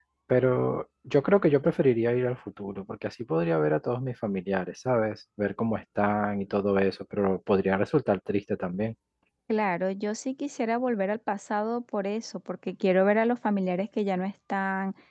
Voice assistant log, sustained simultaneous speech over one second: none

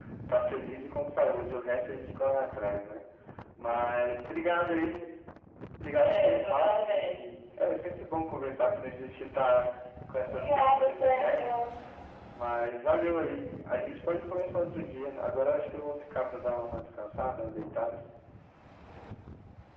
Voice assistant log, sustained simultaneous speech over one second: present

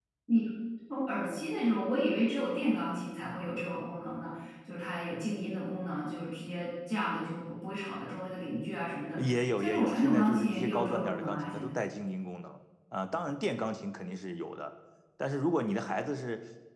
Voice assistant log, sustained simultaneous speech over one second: present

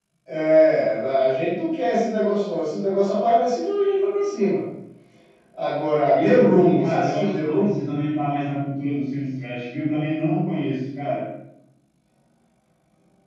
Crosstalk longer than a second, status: present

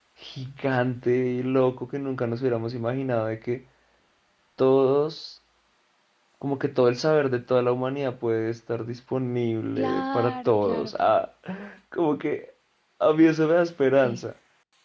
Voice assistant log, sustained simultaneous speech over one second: present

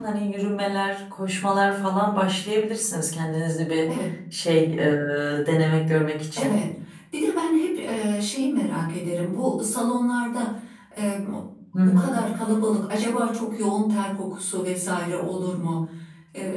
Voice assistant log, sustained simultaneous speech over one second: none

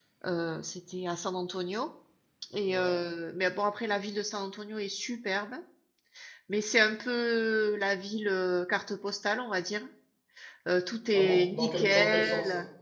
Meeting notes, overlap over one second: present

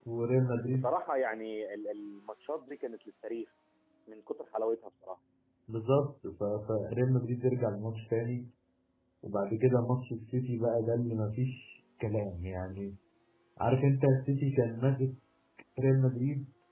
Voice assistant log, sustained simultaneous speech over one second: none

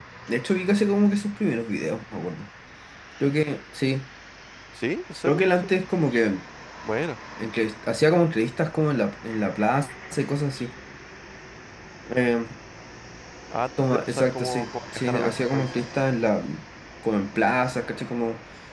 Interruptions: present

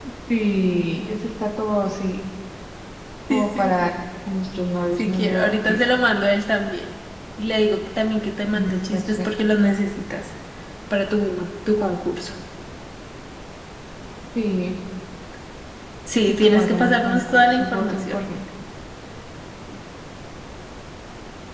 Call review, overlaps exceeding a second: present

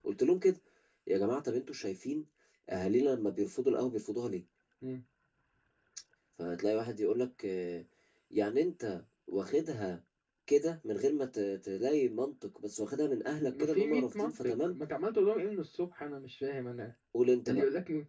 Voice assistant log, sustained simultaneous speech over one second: present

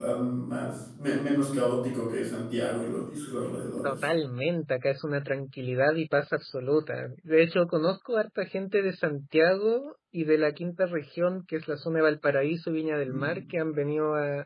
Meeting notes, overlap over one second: none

